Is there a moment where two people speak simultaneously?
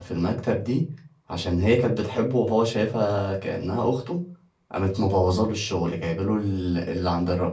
No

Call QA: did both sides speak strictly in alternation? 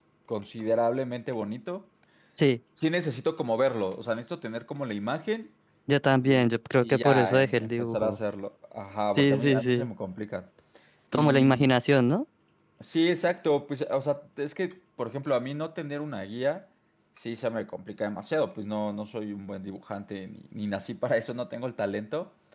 No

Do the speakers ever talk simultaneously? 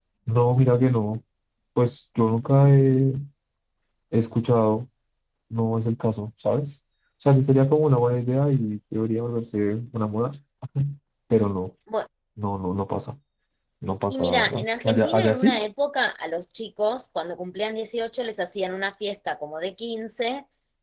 Yes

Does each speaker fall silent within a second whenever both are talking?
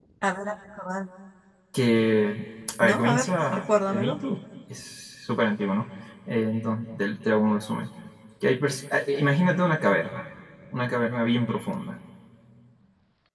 No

